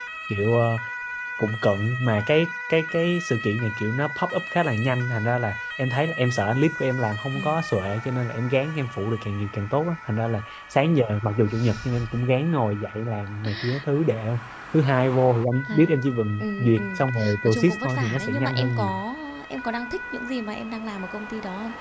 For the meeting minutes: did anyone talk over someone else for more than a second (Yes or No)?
Yes